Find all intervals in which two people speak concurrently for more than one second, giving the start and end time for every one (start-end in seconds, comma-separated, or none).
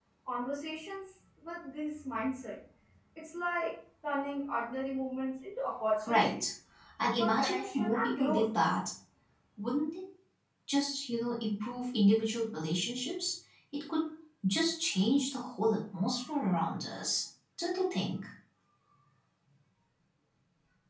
7.2-8.5